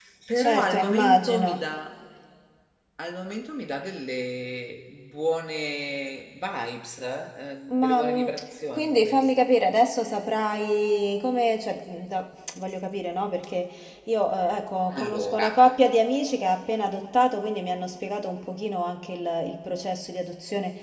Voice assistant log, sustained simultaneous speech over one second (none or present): present